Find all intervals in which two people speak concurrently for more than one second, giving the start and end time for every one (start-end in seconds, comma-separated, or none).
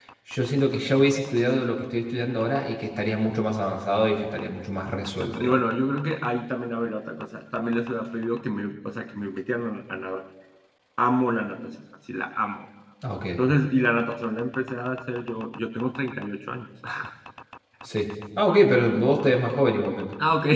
none